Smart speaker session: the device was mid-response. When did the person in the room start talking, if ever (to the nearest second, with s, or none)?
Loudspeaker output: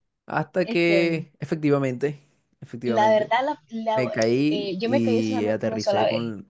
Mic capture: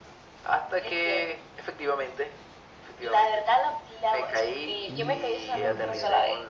5 s